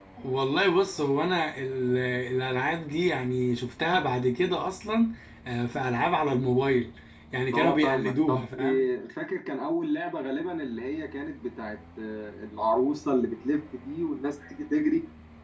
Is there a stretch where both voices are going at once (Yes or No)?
Yes